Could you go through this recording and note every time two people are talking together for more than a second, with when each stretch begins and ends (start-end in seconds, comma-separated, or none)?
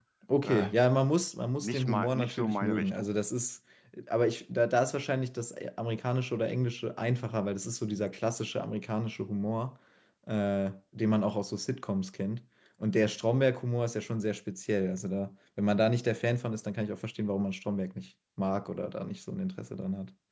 1.6-3.1